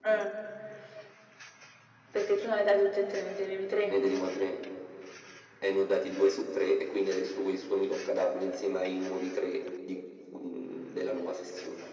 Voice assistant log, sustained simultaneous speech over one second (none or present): none